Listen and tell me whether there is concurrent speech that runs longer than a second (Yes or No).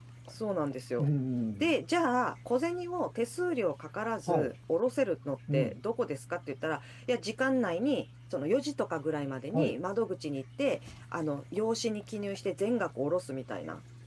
No